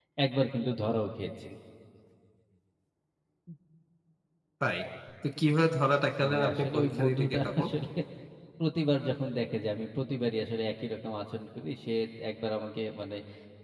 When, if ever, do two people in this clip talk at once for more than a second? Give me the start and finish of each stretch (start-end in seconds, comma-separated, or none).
6.2-7.7